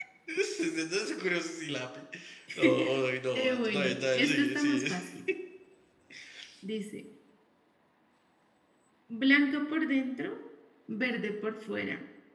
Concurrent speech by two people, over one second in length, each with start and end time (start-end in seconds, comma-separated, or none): 3.4-4.8